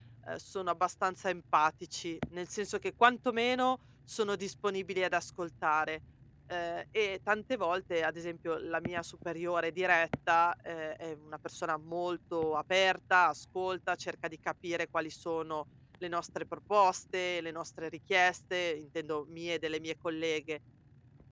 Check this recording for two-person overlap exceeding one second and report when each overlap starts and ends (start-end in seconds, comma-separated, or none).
none